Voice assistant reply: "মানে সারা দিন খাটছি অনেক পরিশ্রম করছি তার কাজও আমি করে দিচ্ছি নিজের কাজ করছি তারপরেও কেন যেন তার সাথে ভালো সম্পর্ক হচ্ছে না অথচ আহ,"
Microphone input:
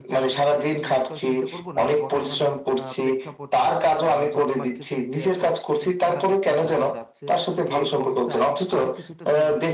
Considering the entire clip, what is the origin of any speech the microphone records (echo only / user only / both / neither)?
both